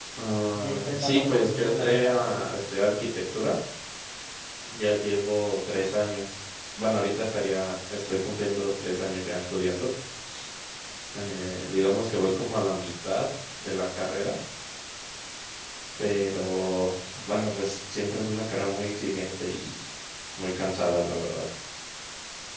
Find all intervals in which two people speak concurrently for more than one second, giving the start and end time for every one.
0.5-2.4

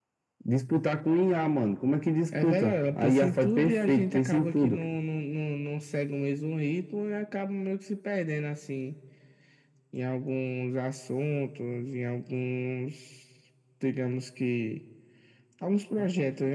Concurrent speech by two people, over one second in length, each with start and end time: 2.4-4.8

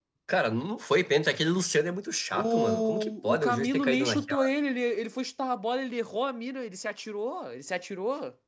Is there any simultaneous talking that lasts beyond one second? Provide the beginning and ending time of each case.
2.3-4.5

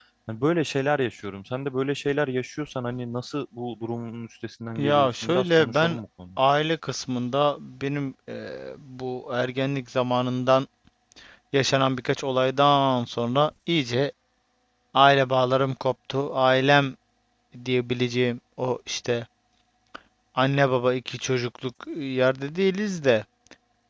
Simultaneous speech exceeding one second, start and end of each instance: 4.8-6.0

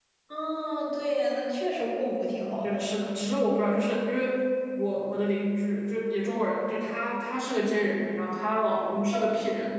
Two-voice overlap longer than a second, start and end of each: none

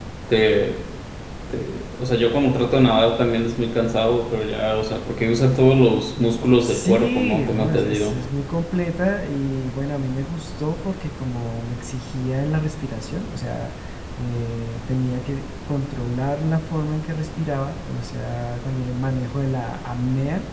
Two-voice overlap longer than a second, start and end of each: 6.6-8.2

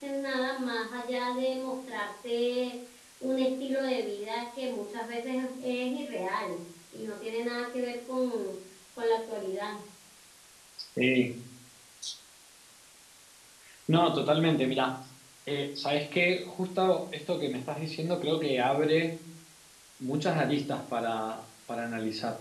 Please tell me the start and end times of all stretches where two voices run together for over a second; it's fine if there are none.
none

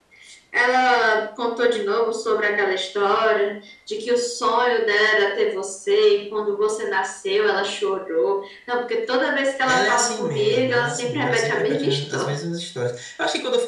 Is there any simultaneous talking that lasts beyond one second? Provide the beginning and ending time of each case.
9.7-12.3

